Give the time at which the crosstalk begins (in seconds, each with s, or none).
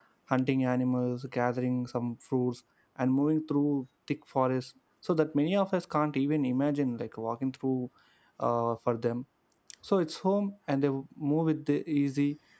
none